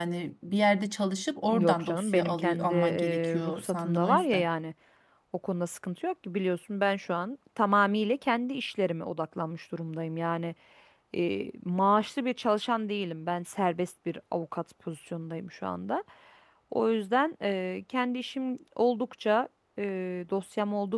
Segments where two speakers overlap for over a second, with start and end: 1.5-4.5

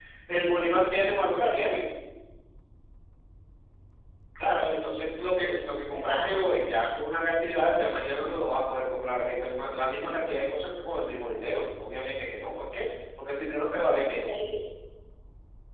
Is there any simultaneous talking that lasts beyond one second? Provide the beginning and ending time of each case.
4.4-6.3

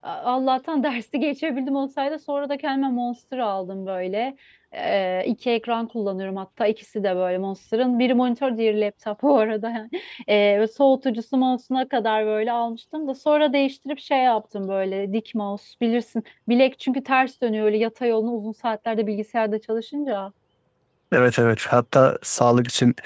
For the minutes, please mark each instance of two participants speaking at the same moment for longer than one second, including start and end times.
none

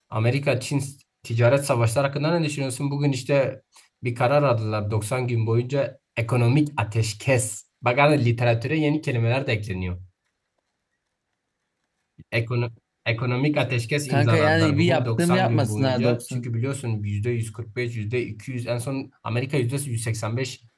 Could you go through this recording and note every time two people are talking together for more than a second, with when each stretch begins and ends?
14.1-16.5

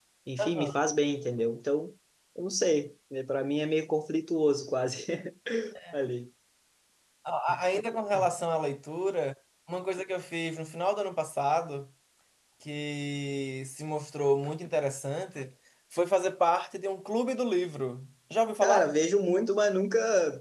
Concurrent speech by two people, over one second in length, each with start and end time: none

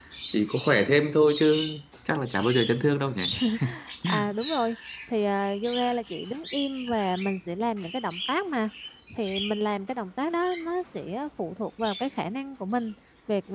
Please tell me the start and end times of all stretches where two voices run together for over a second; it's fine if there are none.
none

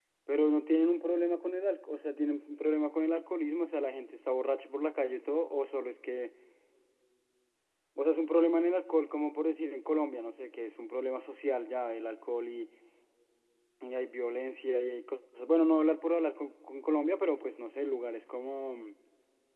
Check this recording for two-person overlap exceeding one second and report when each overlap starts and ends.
none

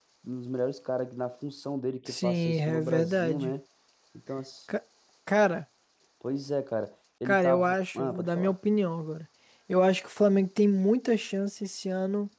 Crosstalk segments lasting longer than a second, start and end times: 2.2-3.5, 7.2-8.5

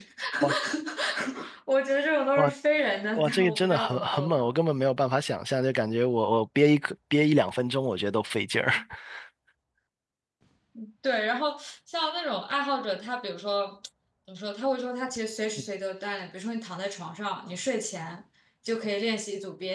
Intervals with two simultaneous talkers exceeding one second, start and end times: 3.2-4.6

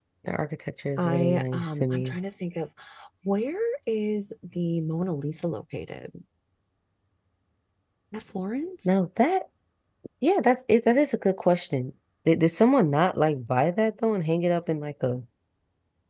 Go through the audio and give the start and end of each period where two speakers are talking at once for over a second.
1.0-2.2

